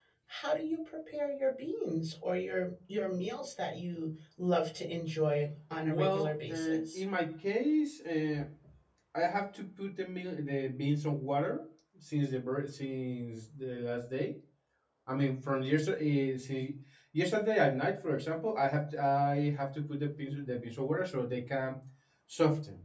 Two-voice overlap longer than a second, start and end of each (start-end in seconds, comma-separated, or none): 5.8-7.0